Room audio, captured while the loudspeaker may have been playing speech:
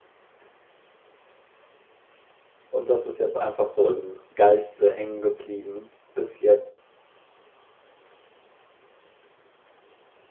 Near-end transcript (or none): Und das ist jetzt einfach so im Geiste hängen geblieben bis jetzt.